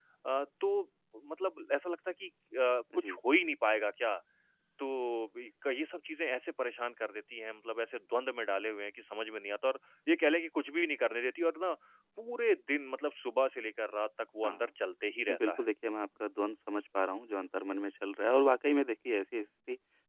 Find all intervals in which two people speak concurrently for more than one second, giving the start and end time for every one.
none

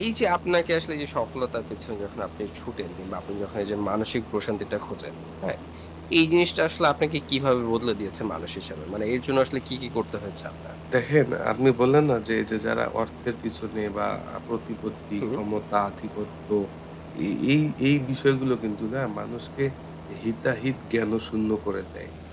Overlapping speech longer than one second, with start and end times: none

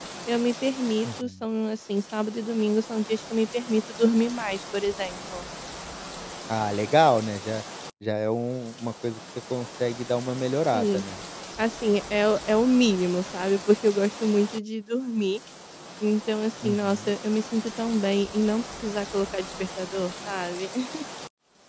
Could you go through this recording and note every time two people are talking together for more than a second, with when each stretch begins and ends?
none

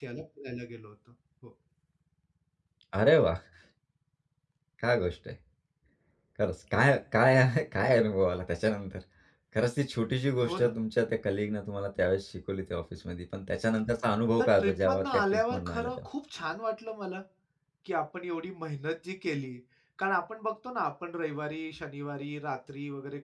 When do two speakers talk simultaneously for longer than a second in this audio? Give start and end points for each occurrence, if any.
14.4-16.1

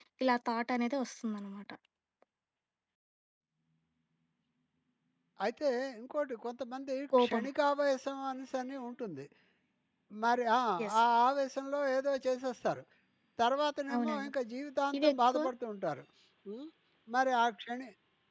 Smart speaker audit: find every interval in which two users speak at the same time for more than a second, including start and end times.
none

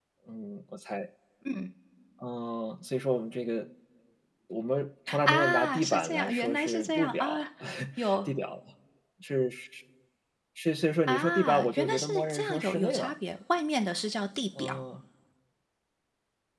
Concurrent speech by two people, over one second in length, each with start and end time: 5.2-7.4, 11.1-13.1

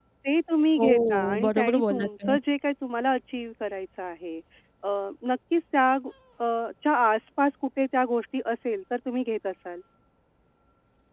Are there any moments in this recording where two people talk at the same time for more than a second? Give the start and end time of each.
0.8-2.4

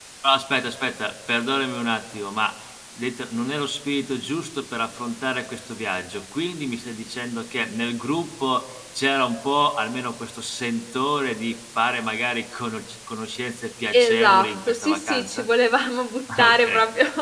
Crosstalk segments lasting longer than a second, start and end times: 13.9-15.5

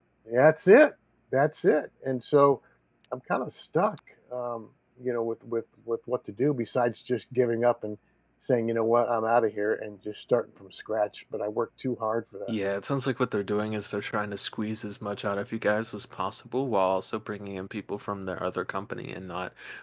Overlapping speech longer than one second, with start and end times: none

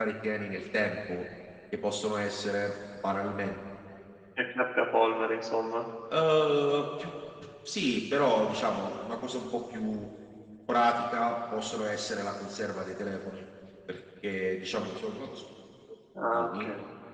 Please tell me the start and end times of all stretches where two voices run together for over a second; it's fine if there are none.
none

